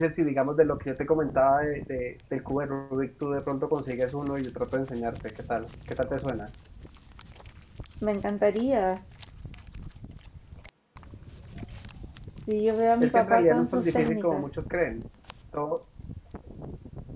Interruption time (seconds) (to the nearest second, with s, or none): 13 s